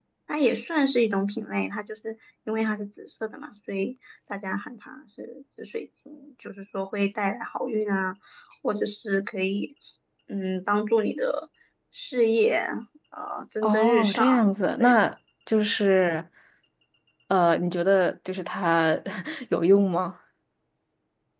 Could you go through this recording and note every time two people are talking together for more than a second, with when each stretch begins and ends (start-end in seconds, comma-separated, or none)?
13.6-14.9